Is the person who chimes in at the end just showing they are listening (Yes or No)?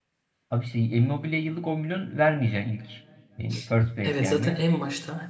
No